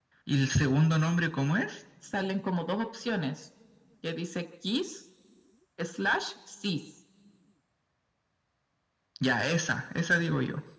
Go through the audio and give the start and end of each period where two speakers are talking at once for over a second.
none

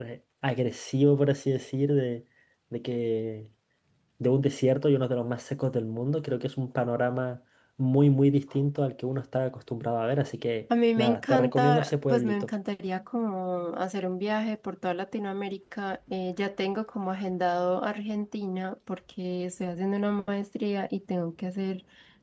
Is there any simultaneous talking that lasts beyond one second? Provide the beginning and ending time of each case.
11.0-12.5

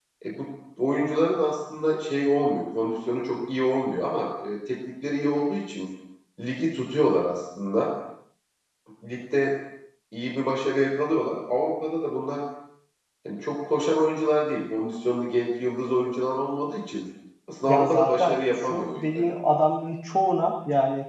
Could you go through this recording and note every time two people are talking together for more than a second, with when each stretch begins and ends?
17.7-19.3

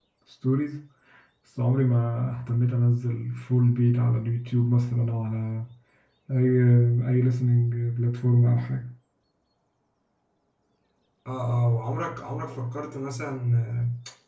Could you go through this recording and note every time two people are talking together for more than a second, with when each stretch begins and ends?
none

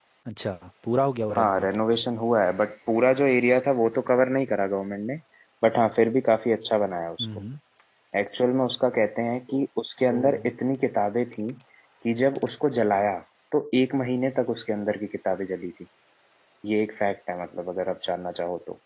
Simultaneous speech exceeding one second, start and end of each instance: none

